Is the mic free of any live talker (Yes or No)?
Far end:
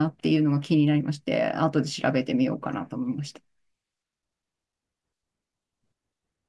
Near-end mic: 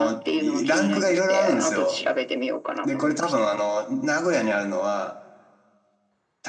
No